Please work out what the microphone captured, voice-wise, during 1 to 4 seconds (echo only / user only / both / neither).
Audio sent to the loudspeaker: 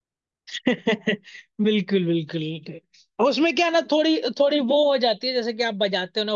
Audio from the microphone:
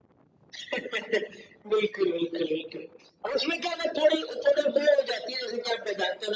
echo only